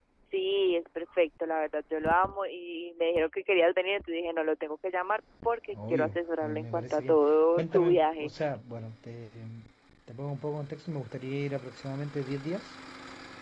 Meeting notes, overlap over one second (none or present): present